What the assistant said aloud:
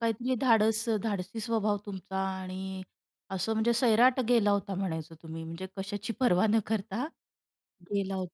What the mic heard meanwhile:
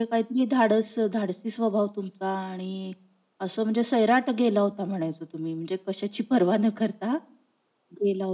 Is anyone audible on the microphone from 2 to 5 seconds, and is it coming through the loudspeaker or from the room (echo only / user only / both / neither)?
echo only